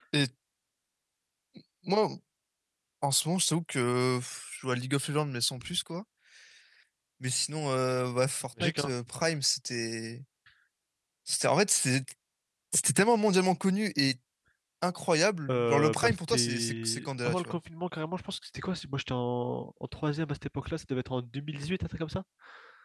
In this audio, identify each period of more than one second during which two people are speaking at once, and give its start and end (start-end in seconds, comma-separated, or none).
15.5-17.6